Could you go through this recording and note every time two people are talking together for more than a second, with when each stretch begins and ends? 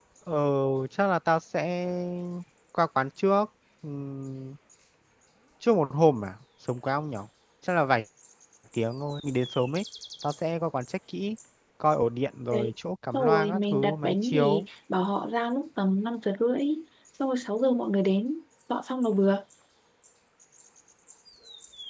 13.1-14.7

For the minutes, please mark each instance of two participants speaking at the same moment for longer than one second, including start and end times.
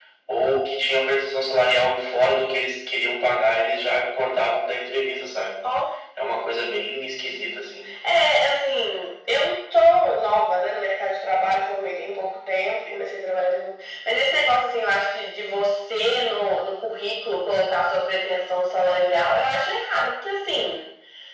none

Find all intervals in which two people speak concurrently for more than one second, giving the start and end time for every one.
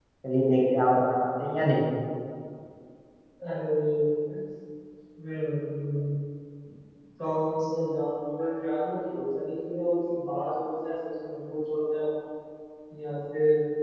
none

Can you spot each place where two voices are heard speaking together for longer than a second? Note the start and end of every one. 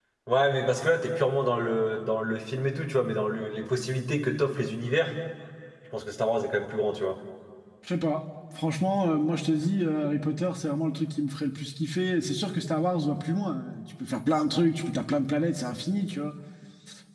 none

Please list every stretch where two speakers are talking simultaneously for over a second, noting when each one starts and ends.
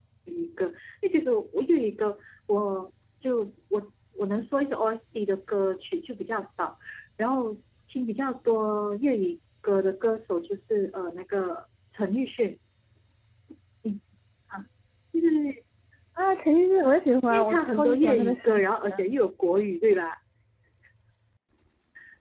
17.3-18.6

